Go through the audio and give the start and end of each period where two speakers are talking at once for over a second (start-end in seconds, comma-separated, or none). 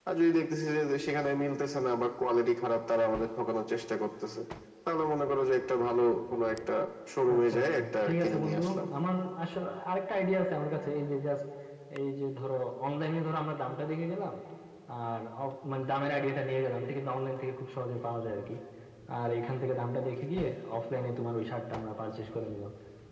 7.4-8.6